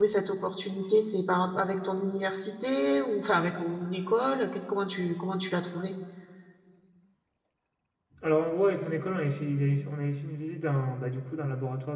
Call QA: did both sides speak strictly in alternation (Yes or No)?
Yes